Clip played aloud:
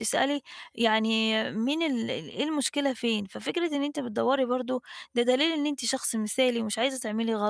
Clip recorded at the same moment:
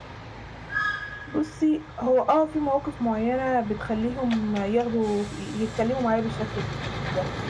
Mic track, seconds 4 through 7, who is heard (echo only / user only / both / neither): user only